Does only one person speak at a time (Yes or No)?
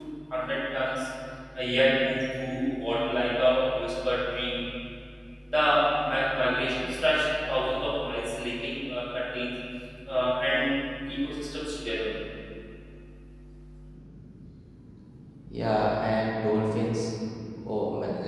Yes